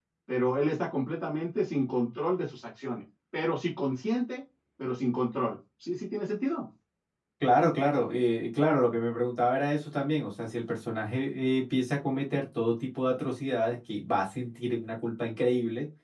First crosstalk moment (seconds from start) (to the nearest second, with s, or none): none